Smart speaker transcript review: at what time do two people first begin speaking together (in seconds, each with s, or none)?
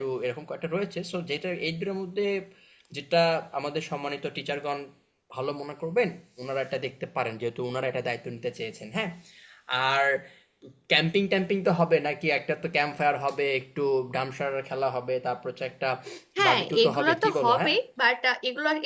16.4 s